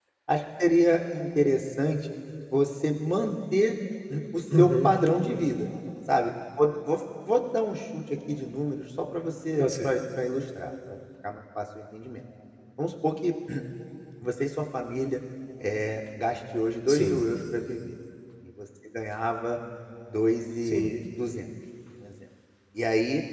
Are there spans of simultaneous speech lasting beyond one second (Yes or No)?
No